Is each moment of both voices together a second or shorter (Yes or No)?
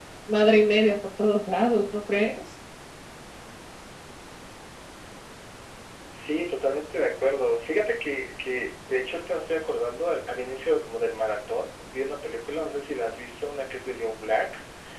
Yes